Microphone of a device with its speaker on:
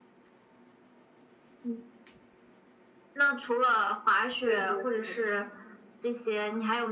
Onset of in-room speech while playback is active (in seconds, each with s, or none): 4.4 s